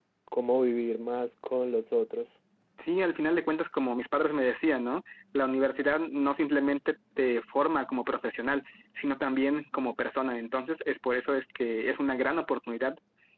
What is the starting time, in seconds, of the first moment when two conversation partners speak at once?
none

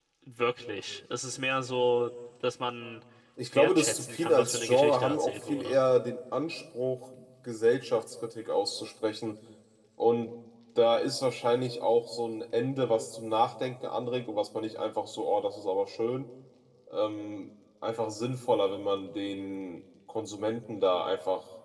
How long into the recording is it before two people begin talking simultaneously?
3.5 s

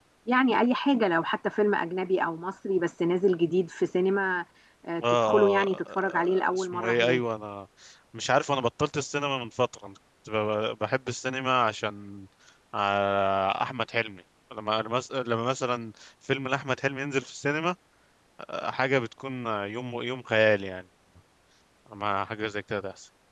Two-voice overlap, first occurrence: 5.2 s

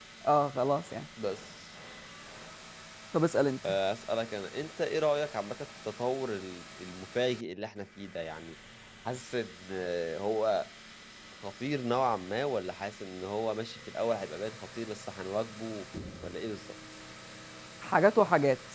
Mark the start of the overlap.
none

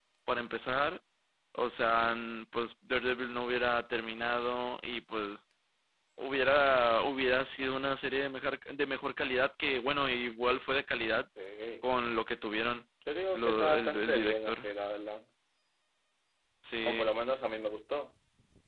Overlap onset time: 13.3 s

